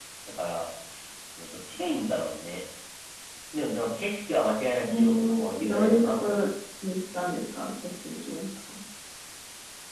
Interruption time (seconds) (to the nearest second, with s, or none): 5 s